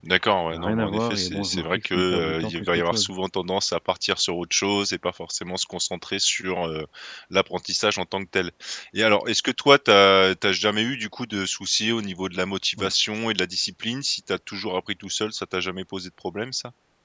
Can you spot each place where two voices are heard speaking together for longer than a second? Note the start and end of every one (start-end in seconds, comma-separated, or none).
0.5-3.1